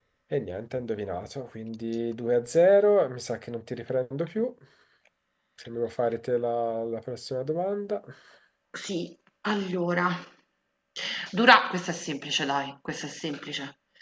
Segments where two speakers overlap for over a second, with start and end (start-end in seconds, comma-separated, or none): none